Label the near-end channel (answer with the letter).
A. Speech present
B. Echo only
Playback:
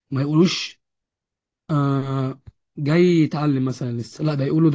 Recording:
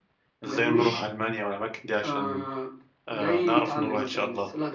A